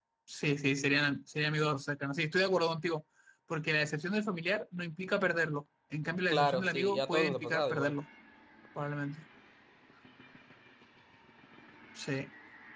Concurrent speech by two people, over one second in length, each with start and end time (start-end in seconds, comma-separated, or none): 6.3-7.9